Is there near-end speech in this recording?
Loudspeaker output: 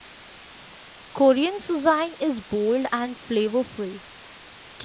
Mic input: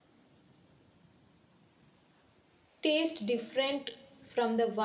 Yes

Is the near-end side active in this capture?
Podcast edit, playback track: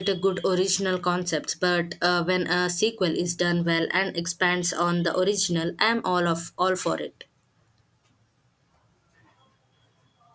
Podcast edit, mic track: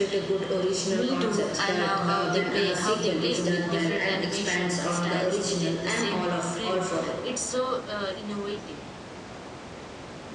Yes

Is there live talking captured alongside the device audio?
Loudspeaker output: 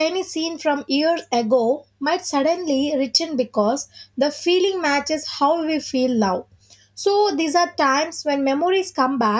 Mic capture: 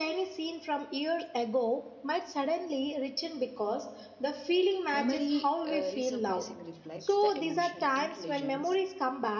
Yes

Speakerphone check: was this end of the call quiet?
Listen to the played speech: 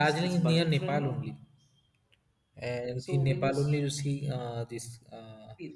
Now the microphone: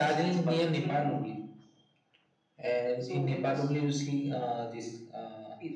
Yes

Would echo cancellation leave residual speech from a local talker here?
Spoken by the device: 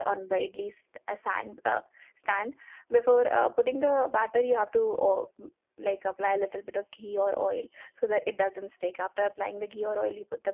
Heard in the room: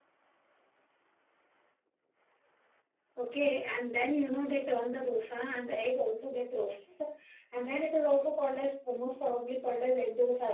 Yes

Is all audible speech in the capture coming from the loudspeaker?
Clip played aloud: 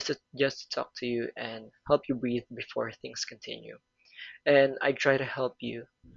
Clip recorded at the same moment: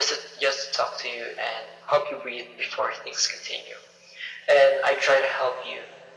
Yes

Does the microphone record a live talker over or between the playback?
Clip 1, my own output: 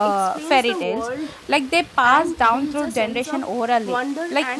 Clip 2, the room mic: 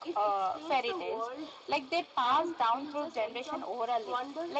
No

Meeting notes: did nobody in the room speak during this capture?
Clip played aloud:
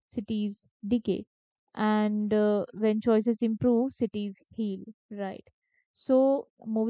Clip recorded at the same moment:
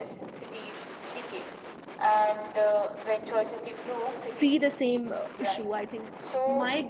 No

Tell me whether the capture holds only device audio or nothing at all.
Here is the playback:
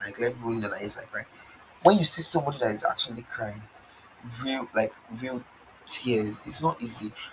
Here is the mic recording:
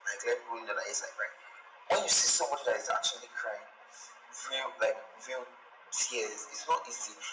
Yes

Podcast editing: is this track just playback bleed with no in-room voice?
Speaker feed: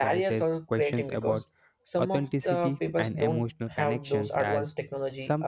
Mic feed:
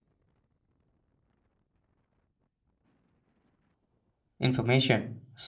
No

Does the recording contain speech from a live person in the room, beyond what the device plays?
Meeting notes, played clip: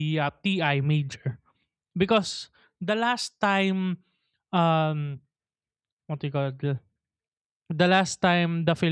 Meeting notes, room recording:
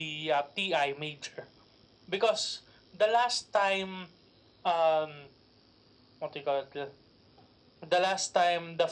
No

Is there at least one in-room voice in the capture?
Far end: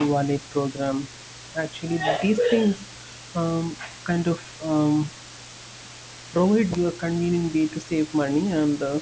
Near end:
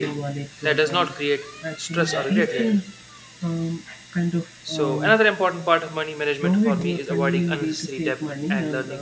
Yes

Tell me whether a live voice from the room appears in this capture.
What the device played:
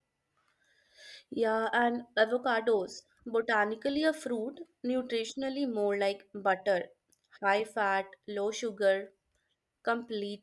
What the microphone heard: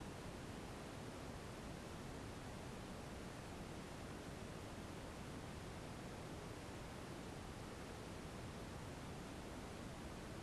No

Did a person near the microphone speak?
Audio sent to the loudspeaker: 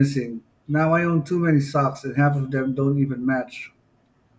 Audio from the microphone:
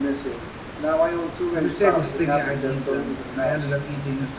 Yes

